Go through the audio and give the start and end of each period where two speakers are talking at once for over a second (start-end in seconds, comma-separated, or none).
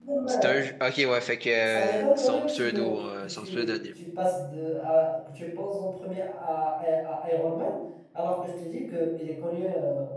1.7-3.7